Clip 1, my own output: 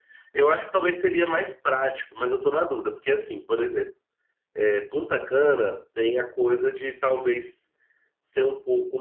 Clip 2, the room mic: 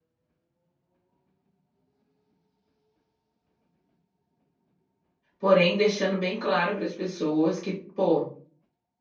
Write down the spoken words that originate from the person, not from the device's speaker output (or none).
porém deixando bem claro para as pessoas que, pô.